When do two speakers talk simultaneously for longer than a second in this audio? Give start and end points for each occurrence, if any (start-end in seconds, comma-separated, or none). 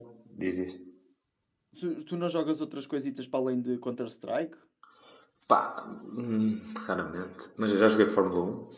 none